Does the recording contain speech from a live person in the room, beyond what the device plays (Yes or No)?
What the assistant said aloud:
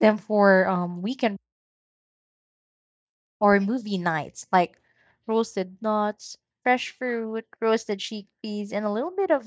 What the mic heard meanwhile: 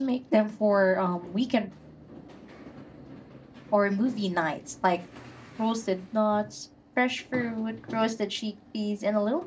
No